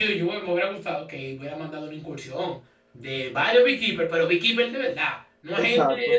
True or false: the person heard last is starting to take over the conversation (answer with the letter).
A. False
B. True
B